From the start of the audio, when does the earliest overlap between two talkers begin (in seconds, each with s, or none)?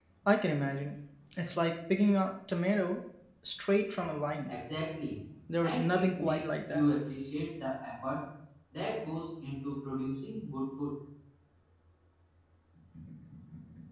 5.6 s